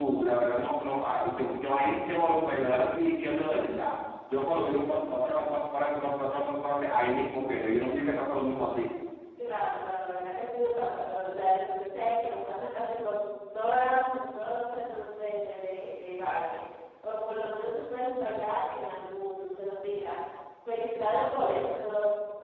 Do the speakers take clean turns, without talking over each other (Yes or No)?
Yes